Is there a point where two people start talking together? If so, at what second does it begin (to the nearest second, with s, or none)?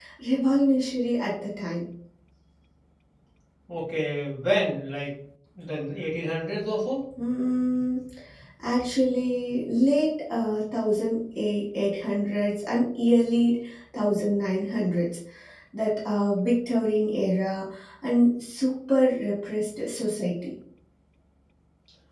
none